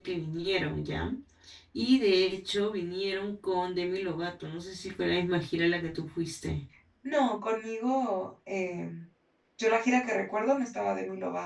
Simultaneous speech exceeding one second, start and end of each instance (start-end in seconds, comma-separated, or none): none